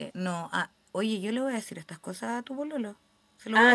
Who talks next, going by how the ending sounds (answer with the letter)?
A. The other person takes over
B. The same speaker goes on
A